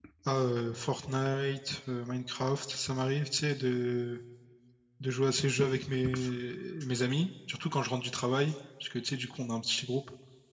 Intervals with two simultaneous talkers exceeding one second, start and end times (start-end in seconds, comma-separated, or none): none